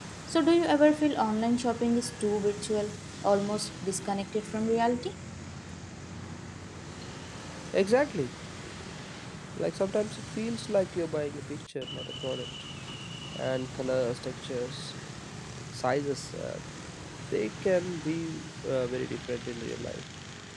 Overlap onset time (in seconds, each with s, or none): none